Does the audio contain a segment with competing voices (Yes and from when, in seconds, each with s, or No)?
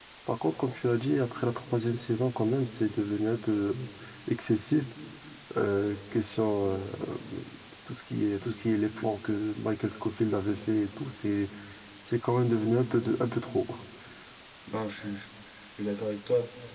No